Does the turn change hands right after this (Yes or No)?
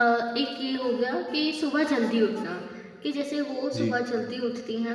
No